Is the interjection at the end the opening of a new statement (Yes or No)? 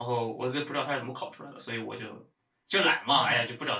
Yes